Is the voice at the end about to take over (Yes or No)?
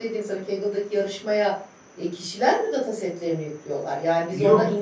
Yes